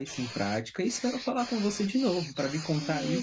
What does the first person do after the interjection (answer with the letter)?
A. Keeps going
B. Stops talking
B